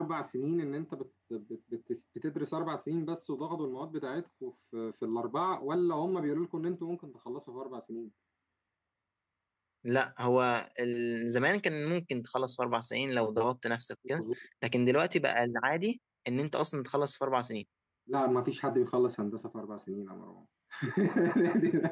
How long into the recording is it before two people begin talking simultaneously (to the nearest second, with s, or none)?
none